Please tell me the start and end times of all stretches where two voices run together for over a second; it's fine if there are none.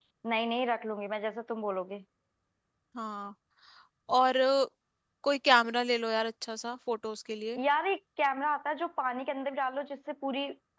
none

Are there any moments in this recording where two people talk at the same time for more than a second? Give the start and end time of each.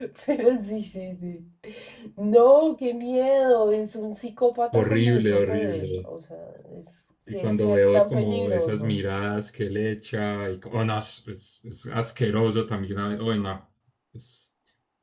4.7-6.0, 7.3-9.0

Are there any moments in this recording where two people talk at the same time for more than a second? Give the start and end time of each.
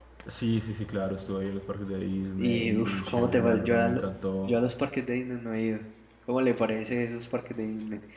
2.4-4.0

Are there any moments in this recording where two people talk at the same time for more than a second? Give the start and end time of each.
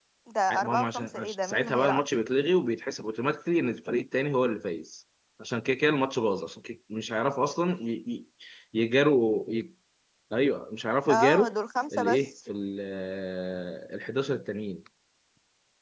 0.5-2.3

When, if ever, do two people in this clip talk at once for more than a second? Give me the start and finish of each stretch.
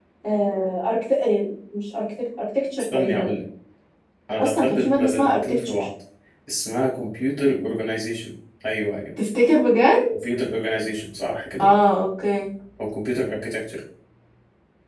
4.4-5.9

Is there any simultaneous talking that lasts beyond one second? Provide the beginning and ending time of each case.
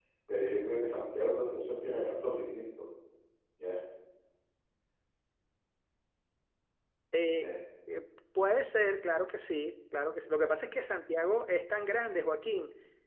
none

